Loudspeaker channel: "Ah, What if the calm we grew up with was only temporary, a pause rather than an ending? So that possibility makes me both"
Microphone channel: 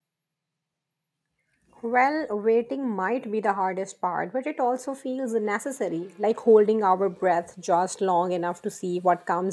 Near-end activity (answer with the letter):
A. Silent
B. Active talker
B